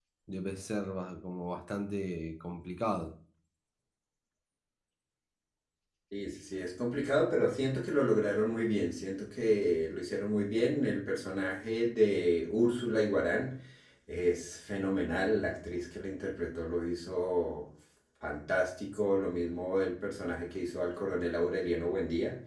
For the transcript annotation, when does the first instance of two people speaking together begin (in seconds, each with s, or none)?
none